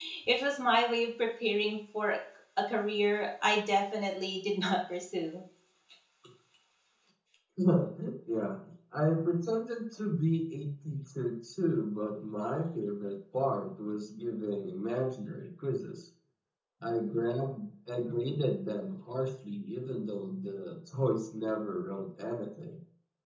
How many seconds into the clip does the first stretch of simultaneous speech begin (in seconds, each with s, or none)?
none